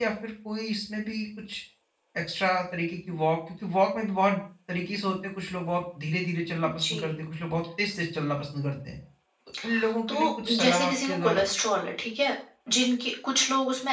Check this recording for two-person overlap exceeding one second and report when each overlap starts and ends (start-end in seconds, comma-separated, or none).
10.1-11.4